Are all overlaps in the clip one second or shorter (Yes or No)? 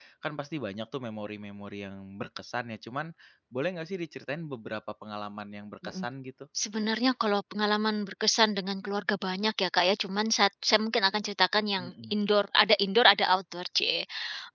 Yes